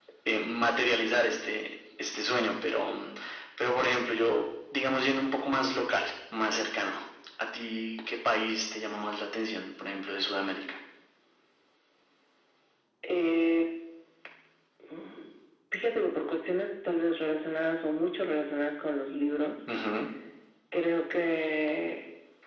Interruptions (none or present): none